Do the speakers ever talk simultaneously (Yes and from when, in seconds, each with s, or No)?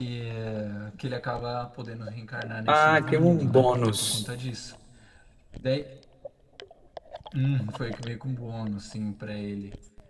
Yes, from 2.7 s